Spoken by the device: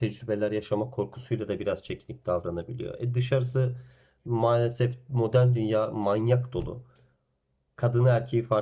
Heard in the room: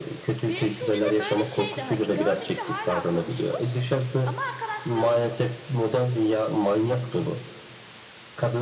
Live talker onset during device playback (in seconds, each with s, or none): 0.4 s